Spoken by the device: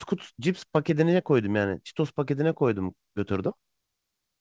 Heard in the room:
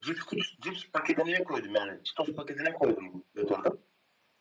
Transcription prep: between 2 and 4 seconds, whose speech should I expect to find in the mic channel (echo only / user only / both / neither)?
echo only